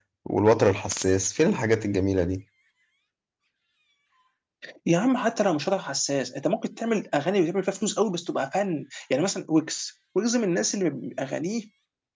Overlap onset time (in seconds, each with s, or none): none